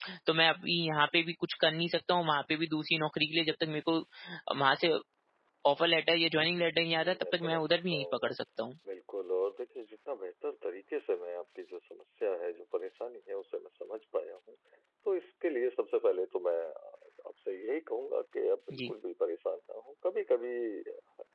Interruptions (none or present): present